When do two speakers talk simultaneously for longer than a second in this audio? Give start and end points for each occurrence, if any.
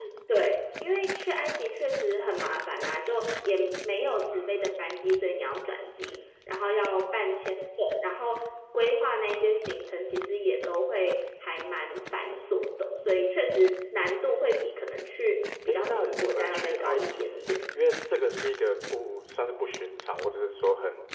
15.7-17.6

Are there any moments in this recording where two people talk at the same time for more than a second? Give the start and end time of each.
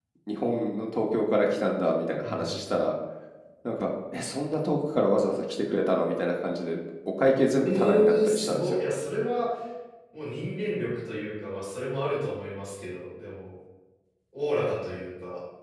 7.7-8.9

